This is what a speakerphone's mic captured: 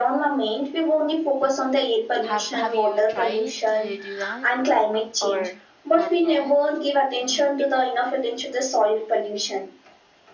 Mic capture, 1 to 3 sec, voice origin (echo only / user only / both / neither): both